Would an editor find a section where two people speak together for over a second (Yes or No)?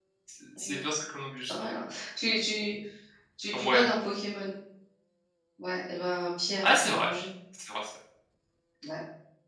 No